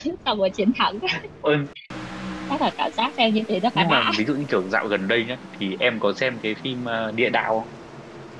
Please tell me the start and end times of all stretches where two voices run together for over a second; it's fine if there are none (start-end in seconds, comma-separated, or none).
none